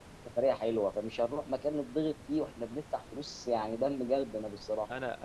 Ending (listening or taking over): taking over